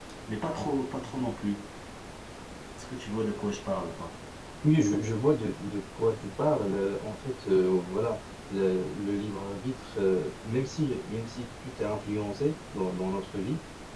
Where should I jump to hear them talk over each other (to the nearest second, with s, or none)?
none